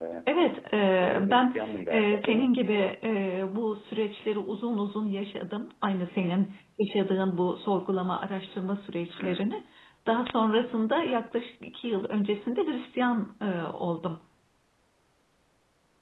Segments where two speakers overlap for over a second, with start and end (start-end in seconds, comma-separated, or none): 1.0-2.5